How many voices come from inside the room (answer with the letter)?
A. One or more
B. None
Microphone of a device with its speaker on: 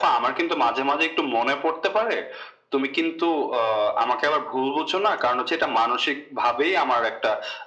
B